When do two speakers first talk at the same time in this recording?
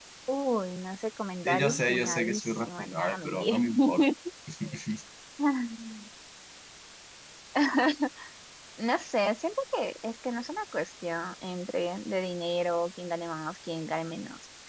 1.4 s

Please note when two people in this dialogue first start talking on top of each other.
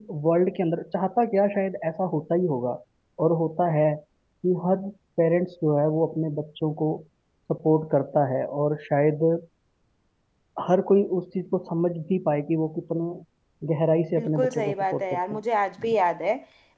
14.2 s

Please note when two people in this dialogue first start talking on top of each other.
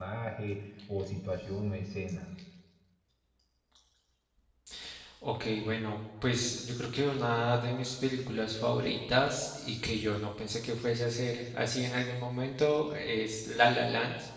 none

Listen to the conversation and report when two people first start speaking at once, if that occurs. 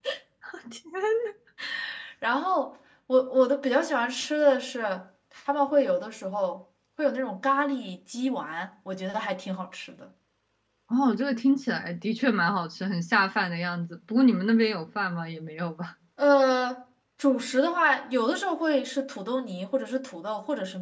none

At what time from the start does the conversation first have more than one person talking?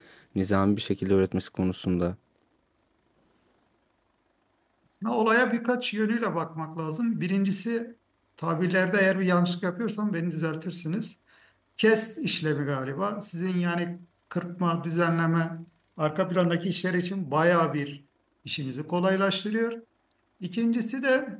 none

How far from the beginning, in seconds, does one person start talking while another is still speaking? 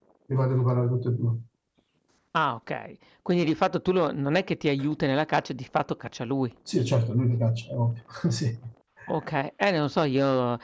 none

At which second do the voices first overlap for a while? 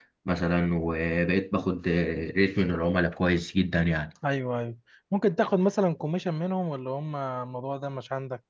none

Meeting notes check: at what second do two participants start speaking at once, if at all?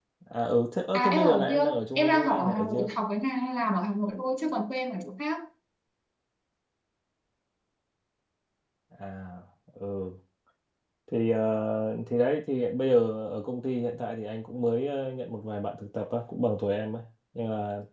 0.9 s

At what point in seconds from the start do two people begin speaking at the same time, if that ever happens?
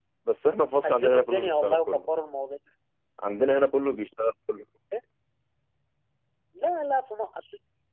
0.8 s

